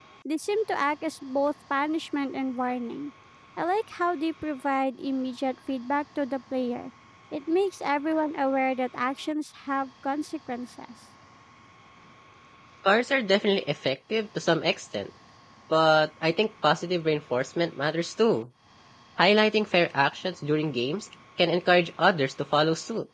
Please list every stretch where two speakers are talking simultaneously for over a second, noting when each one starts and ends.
none

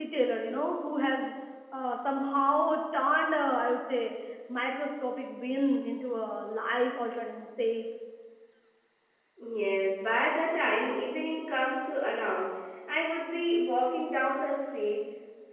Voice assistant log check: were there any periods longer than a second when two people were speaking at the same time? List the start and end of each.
none

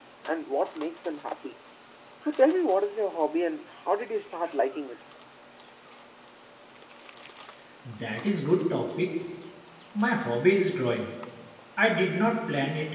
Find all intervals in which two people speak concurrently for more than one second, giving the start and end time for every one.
none

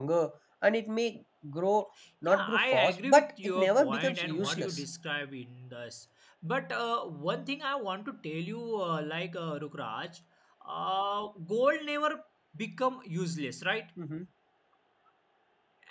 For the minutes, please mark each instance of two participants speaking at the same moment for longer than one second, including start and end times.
2.3-4.8

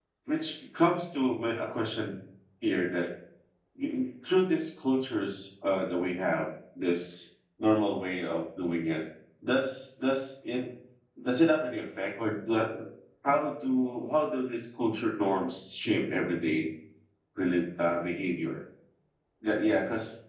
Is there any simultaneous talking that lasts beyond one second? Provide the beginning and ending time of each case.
none

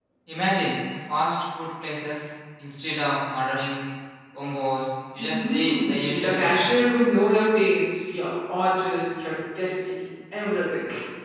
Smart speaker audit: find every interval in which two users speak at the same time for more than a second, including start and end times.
5.2-6.8

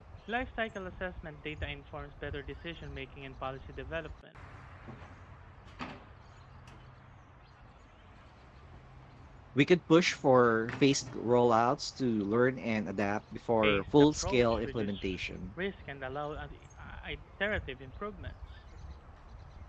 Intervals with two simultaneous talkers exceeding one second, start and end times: 13.6-15.2

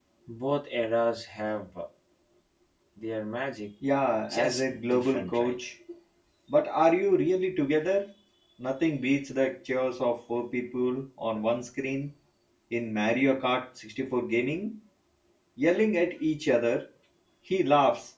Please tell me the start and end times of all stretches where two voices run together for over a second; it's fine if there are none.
4.3-5.5

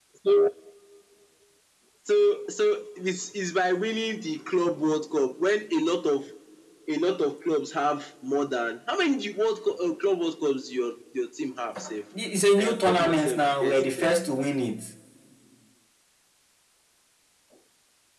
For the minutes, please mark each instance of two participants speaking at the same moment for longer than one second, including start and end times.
12.6-14.1

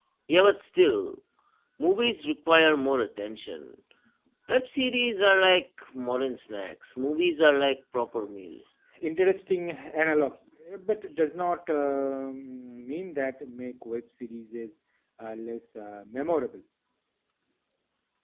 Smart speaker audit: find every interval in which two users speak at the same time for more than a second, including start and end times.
none

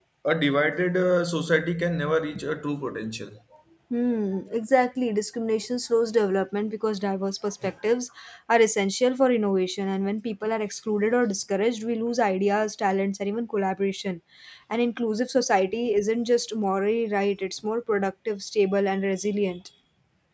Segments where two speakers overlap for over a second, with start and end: none

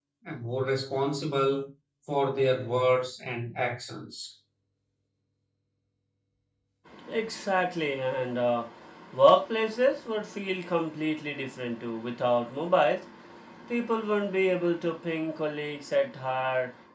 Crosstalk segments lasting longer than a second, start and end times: none

